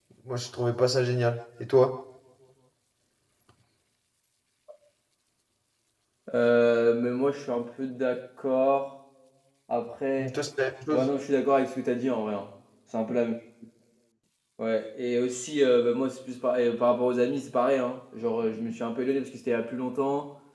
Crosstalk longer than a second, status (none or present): none